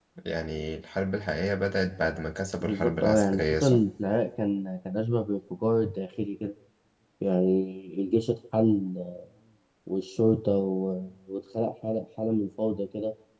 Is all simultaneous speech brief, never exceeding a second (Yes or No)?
No